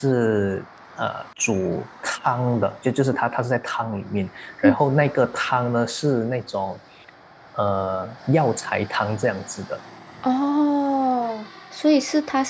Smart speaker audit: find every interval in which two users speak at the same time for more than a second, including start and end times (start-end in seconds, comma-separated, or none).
none